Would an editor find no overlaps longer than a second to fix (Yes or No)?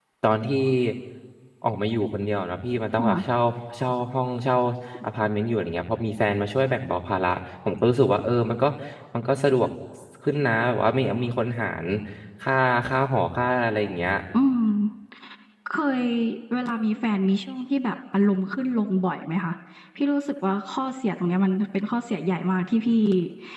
Yes